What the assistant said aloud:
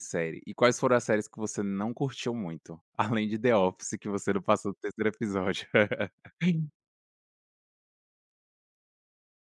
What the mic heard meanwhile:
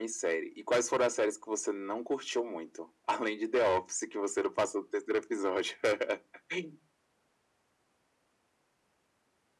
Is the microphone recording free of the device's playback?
No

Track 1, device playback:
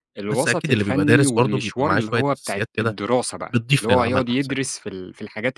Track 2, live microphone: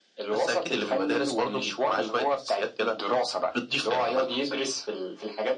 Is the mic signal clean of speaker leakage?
No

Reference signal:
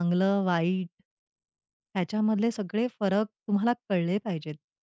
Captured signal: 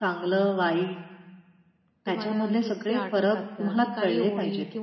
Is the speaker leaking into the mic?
Yes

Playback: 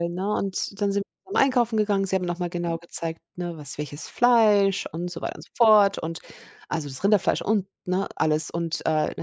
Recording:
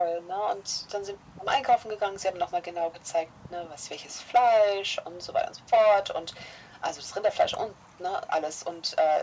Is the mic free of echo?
No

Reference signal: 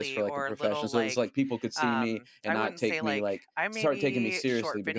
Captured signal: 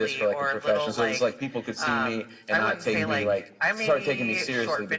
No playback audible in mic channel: No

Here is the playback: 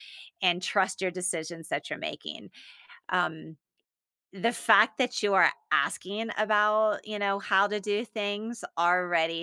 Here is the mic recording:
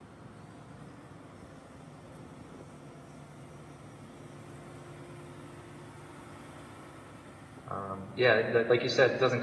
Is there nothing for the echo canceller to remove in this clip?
Yes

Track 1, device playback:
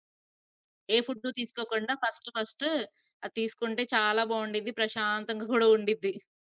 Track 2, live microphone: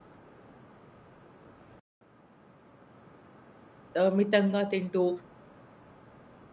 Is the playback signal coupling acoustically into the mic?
No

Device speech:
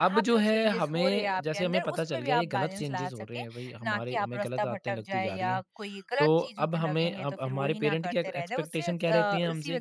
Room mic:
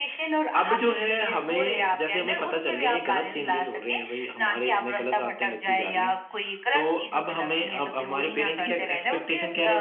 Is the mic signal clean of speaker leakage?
No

